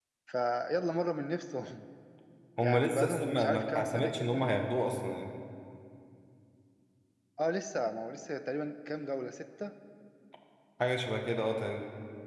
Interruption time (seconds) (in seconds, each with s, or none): 2.6 s